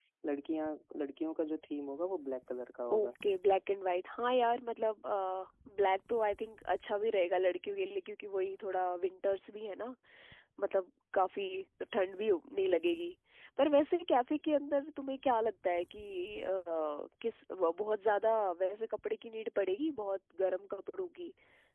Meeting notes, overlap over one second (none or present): none